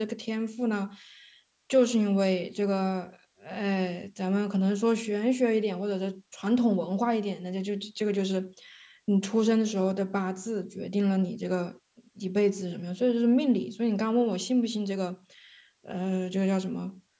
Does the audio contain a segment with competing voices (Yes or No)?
No